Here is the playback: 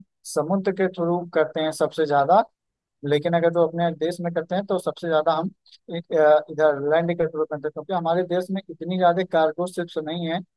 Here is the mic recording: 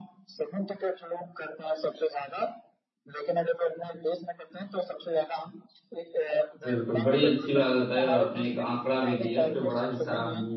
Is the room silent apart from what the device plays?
No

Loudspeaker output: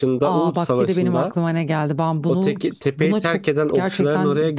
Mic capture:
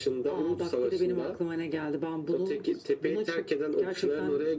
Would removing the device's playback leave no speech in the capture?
Yes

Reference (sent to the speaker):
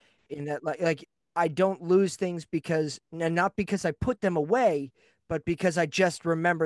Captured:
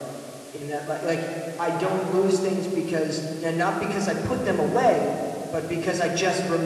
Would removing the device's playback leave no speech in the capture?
Yes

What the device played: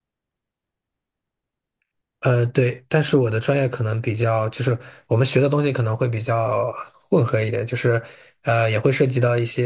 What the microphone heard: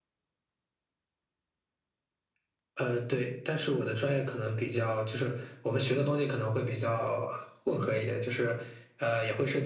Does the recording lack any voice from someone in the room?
Yes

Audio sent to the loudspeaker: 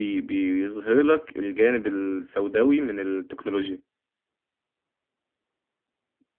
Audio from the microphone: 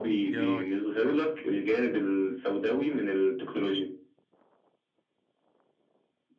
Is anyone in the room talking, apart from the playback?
Yes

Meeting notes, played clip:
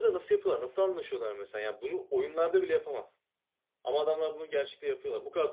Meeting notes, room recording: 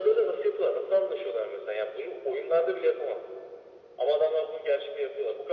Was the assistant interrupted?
No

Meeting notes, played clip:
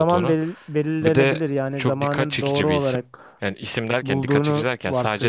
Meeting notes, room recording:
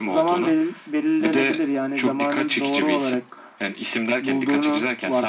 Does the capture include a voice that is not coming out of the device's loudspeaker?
No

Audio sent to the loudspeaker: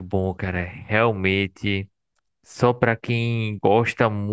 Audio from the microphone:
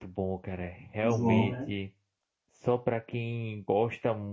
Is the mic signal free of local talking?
No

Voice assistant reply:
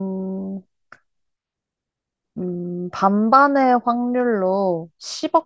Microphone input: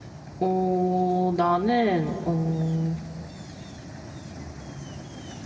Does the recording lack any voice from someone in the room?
No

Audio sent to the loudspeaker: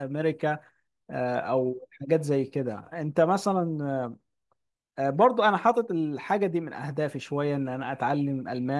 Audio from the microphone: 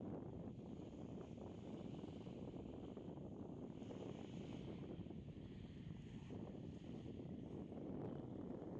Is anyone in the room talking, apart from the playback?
No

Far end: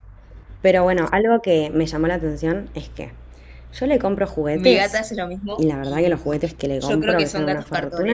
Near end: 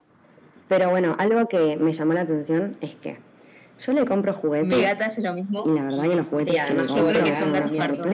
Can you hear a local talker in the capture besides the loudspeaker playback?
Yes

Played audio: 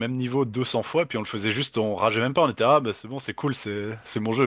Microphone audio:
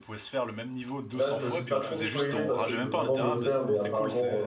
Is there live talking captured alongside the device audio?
Yes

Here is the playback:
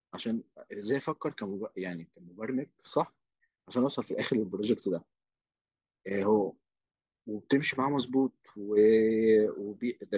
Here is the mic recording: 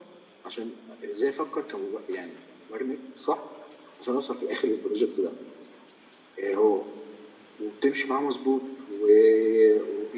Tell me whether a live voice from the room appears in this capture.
No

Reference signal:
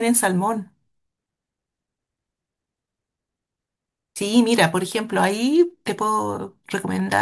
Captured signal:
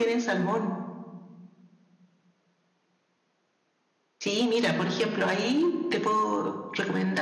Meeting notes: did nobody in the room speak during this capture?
Yes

